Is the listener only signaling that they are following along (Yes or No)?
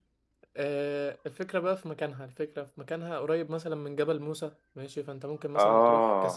Yes